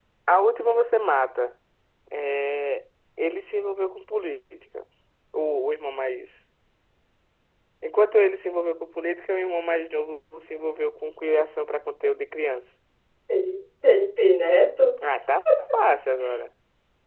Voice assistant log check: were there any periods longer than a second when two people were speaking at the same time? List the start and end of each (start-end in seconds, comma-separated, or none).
none